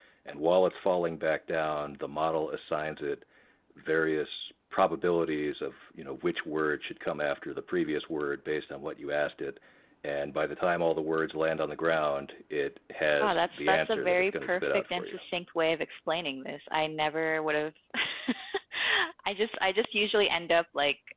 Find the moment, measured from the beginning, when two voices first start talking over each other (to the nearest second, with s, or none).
13 s